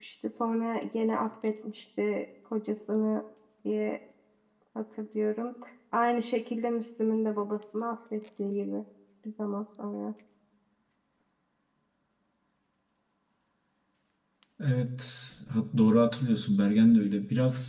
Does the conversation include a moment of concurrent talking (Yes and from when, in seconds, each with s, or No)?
No